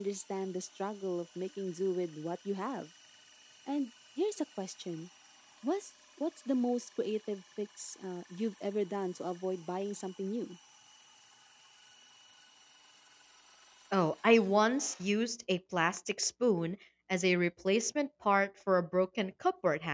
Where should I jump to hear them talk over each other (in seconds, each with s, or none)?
none